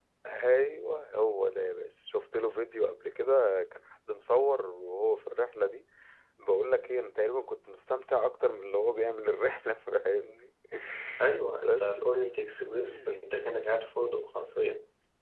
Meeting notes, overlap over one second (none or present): none